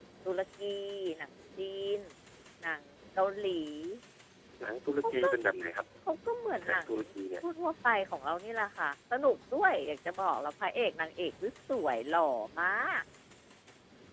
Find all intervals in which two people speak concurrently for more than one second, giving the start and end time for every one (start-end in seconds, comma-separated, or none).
none